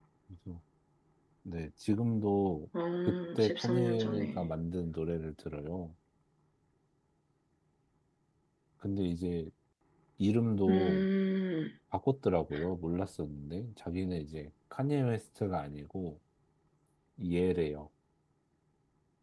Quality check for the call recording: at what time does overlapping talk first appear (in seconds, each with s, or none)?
3.1 s